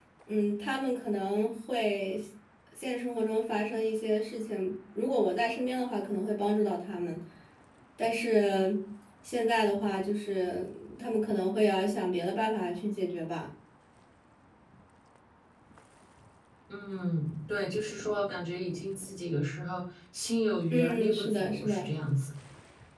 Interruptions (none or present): present